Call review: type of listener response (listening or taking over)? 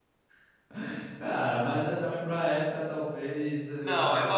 taking over